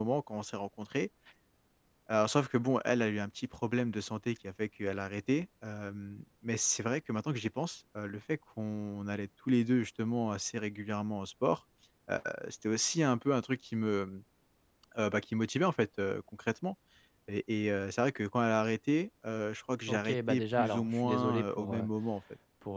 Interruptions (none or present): present